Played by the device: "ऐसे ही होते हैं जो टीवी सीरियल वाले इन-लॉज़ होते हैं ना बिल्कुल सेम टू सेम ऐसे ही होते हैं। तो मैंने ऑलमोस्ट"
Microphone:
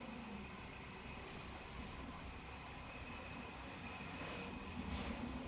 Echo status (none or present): none